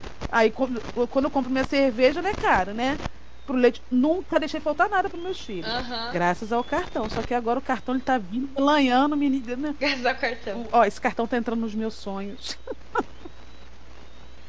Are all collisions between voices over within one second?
Yes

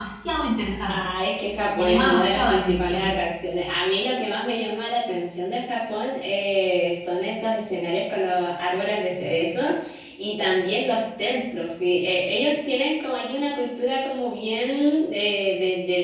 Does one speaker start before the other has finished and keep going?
Yes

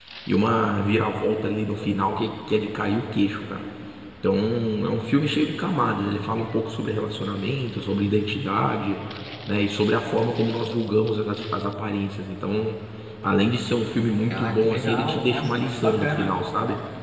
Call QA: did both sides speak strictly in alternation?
No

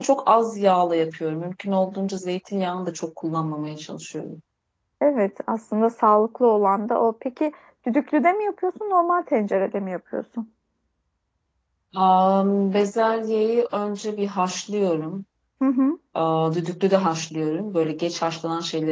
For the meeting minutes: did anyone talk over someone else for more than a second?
No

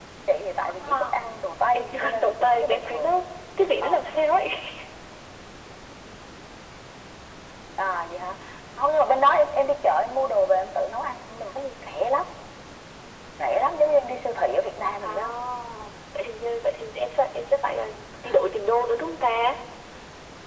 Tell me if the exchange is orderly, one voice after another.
No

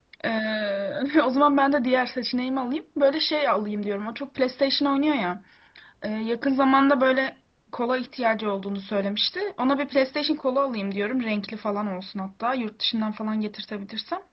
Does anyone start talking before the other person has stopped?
No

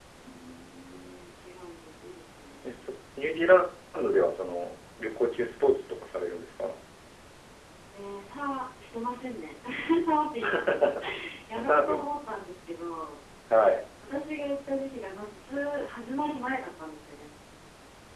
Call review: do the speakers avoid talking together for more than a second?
Yes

